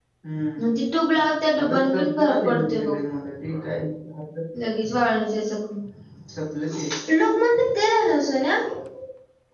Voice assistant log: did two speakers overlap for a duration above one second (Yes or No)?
Yes